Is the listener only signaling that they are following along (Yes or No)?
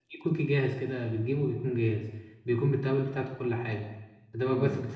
Yes